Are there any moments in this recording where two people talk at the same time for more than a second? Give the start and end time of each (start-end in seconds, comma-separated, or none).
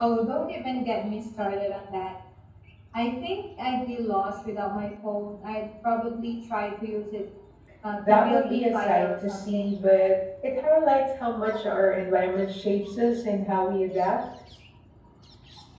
8.0-9.7